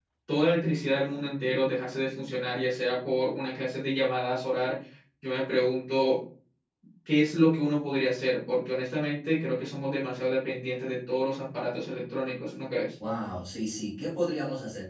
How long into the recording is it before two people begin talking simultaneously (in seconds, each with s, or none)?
none